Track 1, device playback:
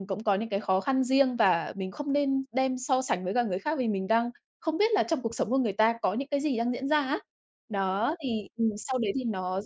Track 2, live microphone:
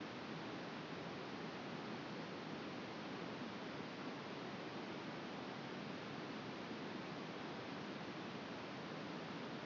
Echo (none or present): none